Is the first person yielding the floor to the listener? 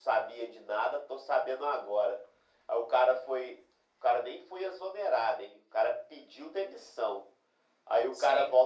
No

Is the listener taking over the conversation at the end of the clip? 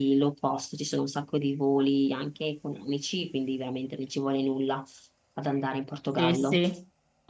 Yes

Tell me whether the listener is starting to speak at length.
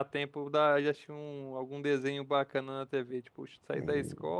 No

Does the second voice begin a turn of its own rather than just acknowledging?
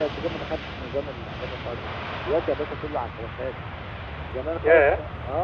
No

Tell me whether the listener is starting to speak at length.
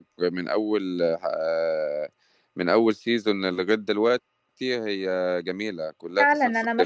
Yes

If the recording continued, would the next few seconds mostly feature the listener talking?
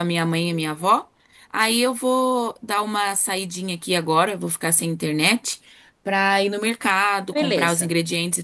No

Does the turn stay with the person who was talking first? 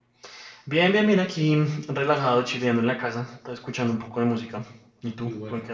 No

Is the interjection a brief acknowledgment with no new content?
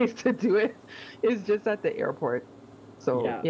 No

